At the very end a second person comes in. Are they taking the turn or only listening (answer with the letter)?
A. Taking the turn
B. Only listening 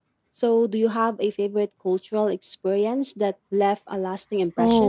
A